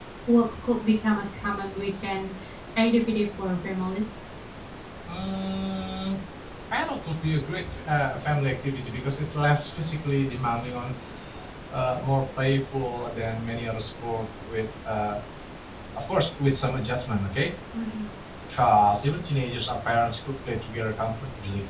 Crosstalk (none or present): none